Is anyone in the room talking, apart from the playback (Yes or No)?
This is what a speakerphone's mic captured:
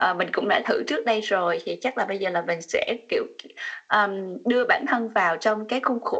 No